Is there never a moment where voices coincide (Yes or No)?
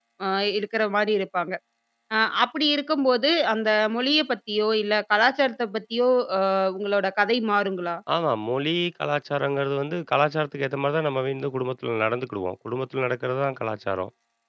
Yes